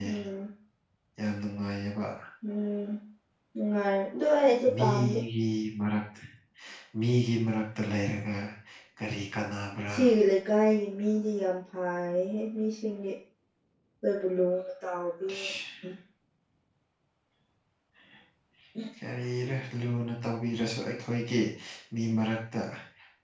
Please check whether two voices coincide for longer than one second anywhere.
No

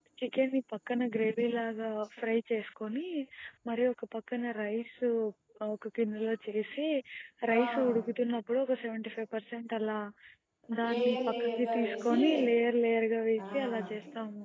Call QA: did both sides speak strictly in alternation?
No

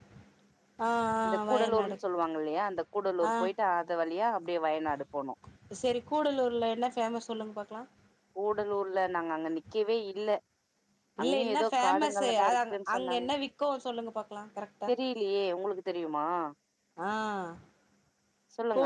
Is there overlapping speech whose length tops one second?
Yes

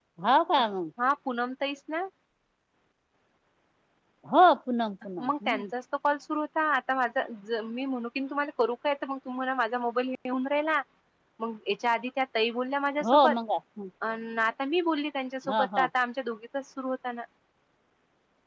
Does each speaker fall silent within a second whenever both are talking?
Yes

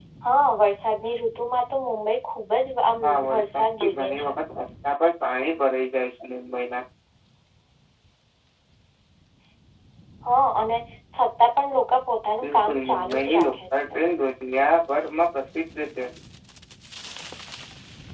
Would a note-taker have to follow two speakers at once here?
Yes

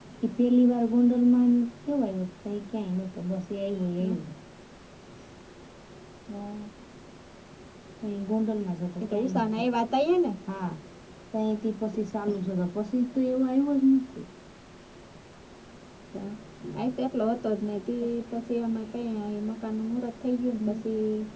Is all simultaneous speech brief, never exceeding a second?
Yes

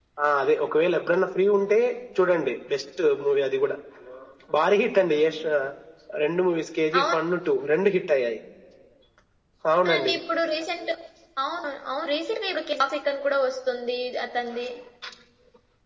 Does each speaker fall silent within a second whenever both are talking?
Yes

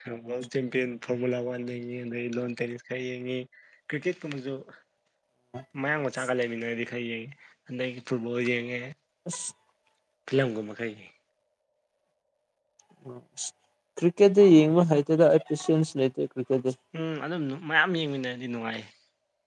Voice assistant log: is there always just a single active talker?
Yes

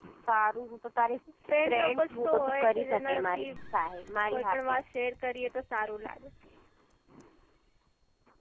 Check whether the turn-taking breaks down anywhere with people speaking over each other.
Yes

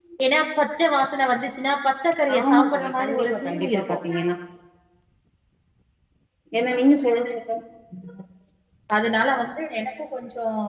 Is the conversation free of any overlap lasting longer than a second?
No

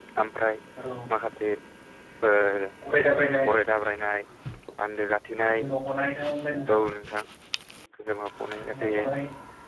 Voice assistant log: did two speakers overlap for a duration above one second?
No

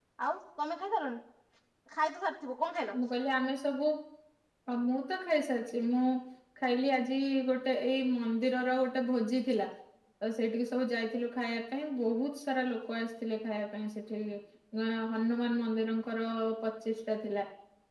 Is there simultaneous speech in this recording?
No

